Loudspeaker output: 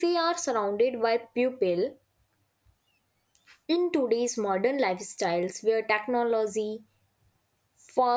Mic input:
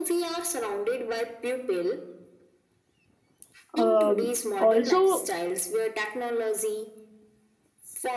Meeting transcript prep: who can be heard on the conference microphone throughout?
both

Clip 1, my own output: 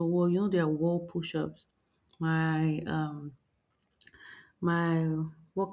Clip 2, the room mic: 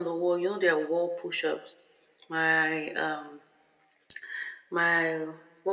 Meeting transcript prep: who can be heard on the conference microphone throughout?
echo only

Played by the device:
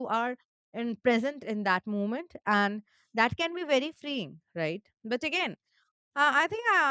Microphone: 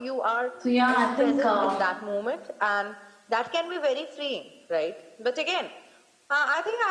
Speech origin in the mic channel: both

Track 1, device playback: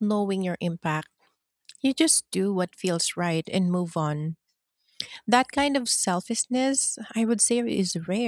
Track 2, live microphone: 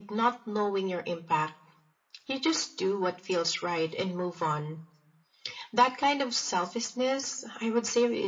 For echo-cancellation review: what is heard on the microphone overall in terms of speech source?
echo only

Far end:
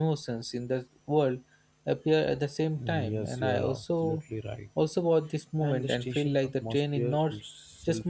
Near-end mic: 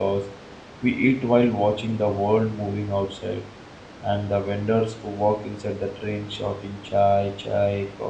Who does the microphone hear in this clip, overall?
user only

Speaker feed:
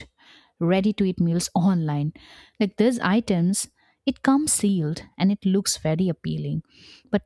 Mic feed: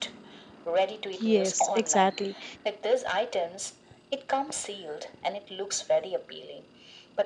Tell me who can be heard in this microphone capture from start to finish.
both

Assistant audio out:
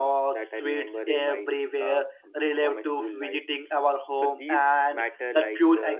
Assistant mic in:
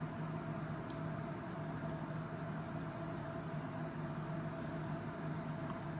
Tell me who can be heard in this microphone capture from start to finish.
neither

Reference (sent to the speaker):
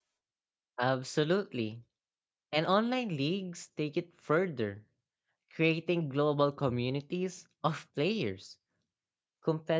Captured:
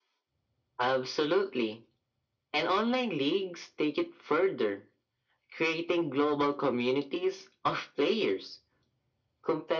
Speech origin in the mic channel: echo only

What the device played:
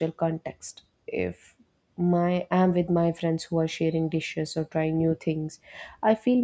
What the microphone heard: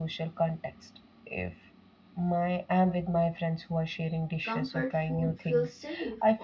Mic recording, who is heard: both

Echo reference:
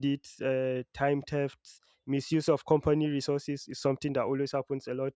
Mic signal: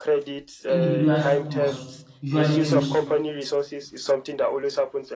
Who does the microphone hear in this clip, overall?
both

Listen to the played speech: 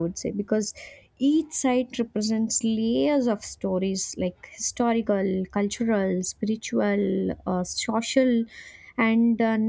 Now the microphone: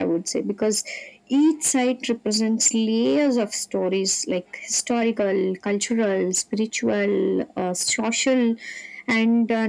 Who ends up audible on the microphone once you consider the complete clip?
echo only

